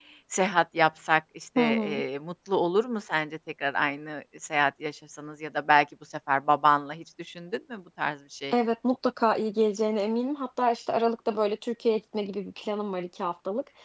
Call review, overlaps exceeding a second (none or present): none